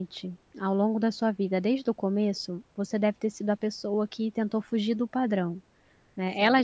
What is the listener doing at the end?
listening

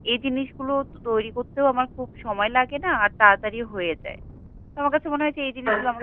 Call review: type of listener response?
listening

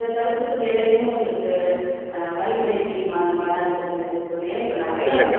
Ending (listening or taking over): listening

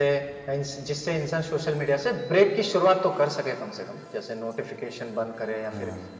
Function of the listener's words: listening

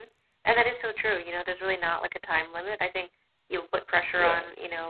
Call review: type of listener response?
listening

